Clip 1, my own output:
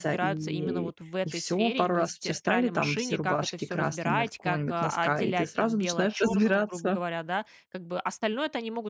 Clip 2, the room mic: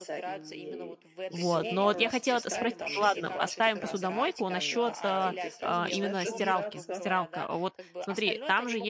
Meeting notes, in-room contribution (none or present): present